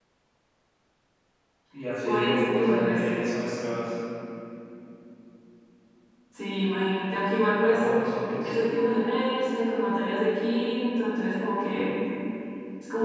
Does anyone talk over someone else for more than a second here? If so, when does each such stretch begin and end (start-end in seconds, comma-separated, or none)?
2.0-3.3